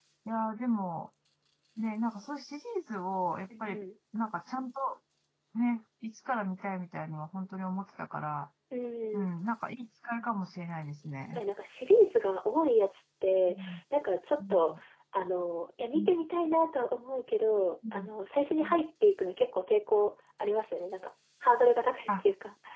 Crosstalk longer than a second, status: none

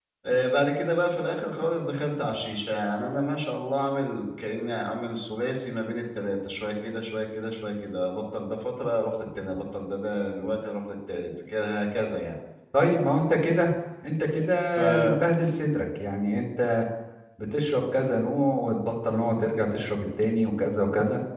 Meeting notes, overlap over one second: none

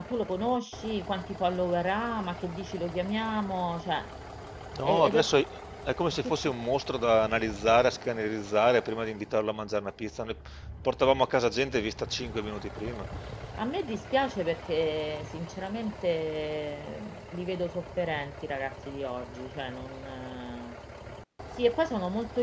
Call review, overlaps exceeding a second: none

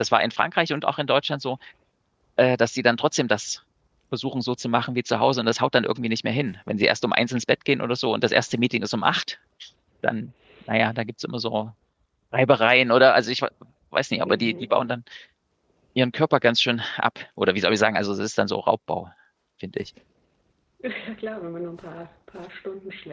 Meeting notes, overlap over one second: none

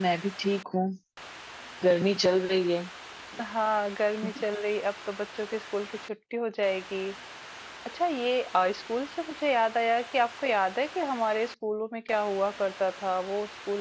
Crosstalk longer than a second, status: none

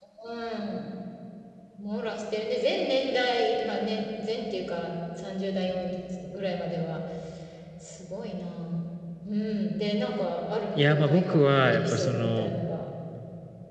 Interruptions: present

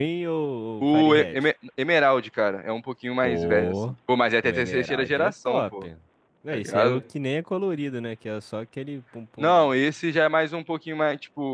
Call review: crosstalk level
present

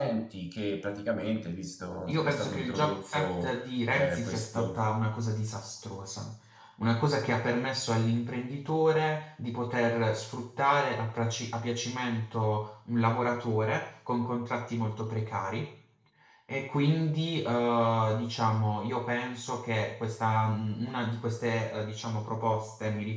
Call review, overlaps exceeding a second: present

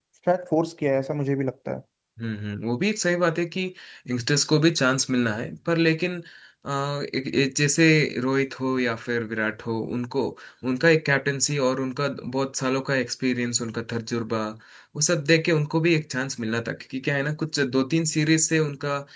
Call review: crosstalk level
none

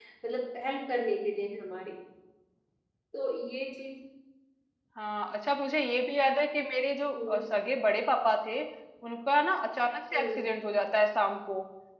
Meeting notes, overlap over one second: none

